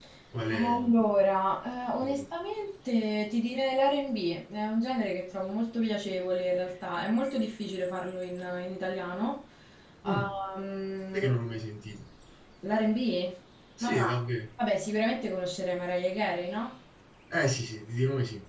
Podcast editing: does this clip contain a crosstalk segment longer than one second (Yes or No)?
No